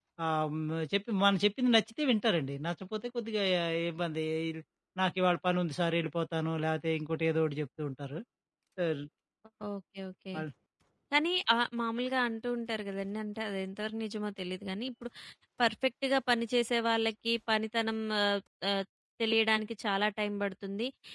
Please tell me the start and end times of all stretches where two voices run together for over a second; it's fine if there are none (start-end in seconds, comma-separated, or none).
none